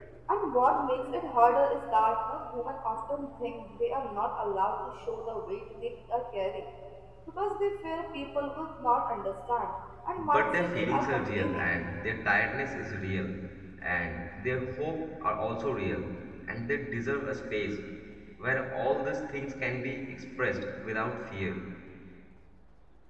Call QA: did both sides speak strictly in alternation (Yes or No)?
No